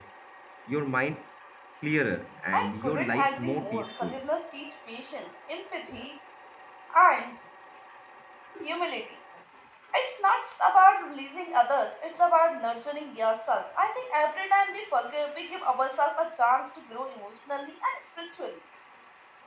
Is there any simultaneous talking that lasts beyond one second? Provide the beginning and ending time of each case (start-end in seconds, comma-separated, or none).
2.5-4.1